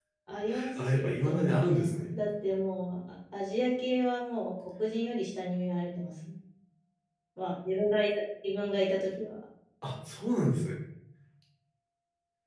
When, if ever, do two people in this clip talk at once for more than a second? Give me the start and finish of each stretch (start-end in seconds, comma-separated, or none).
0.8-2.2